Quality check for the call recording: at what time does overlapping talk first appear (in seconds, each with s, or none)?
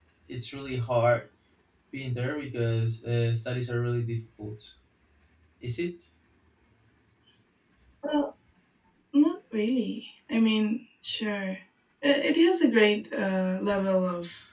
none